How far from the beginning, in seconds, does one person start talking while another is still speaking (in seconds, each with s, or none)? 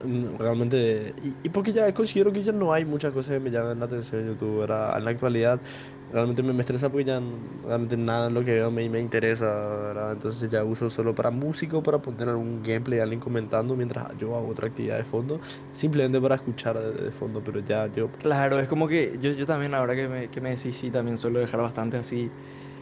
none